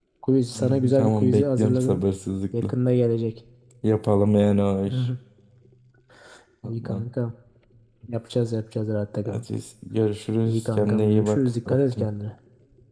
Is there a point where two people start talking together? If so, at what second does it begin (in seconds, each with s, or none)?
0.6 s